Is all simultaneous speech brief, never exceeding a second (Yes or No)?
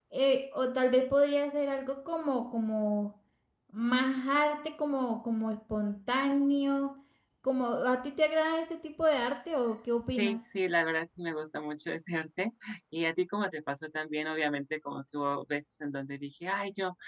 Yes